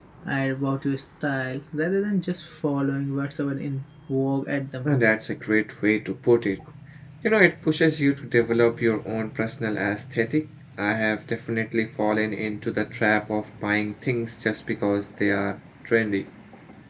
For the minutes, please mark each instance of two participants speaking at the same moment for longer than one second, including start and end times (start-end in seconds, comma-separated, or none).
none